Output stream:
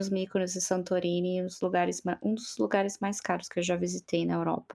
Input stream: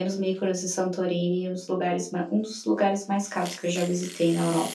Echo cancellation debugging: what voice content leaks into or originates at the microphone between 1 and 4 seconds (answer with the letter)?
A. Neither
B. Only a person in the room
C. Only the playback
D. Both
C